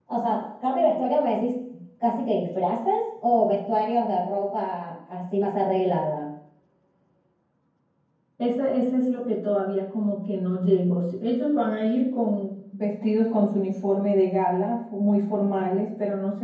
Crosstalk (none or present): none